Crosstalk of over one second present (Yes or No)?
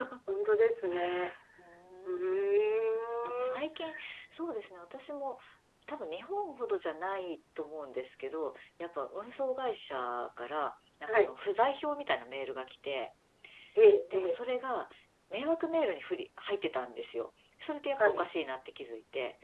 No